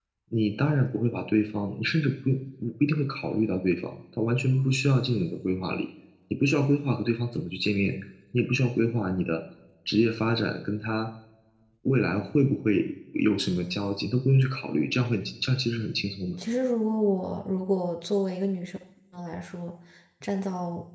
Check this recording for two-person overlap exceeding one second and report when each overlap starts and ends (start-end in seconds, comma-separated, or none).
none